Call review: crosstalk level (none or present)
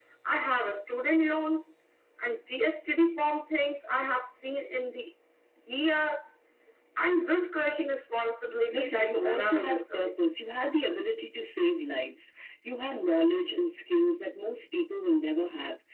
present